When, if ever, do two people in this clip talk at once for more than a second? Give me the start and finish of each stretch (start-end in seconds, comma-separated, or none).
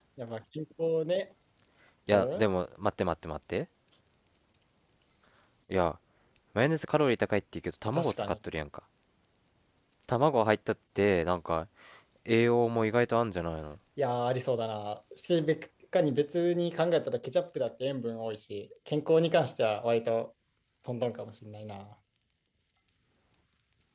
none